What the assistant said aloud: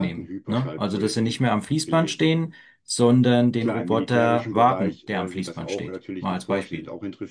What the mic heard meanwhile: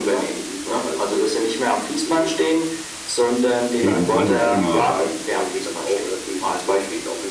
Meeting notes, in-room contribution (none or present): present